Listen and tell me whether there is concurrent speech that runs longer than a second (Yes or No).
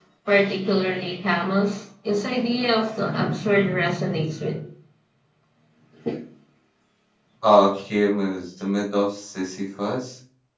No